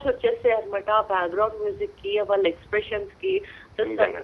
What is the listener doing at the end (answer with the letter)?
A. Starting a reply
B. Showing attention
B